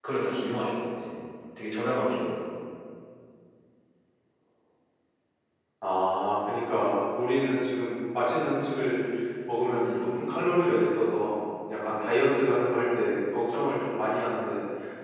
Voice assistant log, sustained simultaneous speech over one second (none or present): none